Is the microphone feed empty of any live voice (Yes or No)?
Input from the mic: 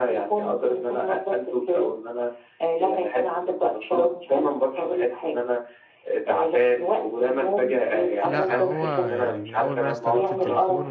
No